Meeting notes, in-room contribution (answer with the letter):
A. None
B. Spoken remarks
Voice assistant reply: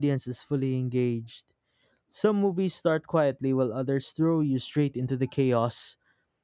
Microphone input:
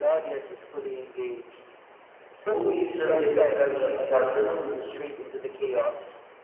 B